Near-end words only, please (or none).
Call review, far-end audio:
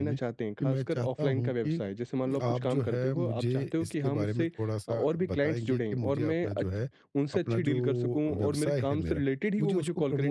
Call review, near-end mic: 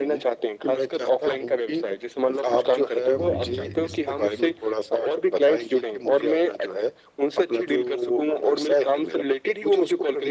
हुँ, हुँ, हुँ।